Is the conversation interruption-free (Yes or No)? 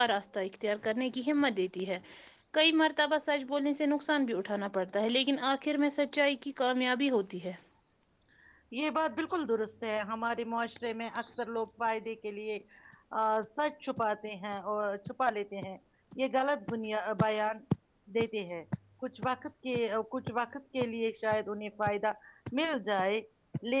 Yes